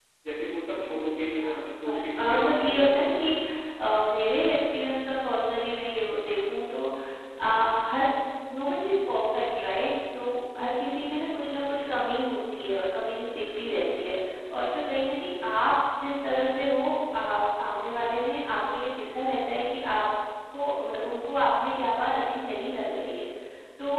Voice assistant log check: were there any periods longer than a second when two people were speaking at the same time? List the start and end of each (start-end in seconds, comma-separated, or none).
1.9-3.3